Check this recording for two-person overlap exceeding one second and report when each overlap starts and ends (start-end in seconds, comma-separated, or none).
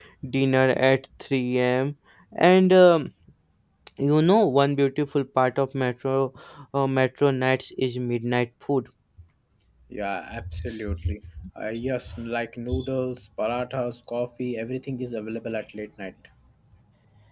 none